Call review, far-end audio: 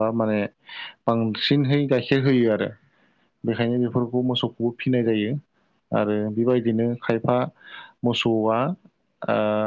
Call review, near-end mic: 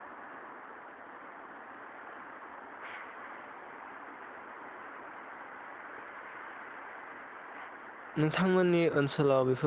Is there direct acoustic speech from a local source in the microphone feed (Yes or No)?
Yes